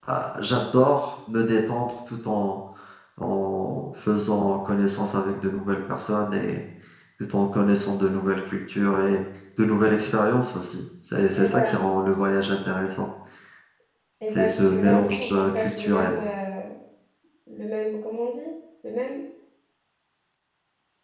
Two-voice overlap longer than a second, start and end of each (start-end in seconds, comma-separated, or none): 14.3-16.2